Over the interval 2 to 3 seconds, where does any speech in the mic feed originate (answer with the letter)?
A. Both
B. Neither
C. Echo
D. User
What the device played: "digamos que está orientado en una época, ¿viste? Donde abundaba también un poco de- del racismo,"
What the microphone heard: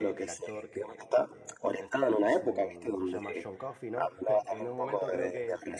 A